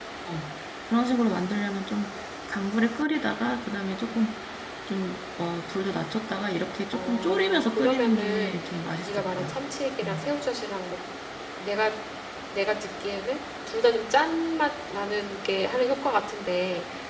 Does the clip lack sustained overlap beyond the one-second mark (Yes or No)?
No